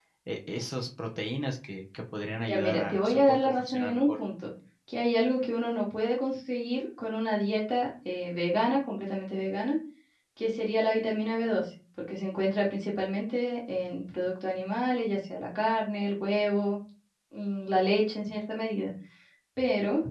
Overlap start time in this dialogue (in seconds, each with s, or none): 2.5 s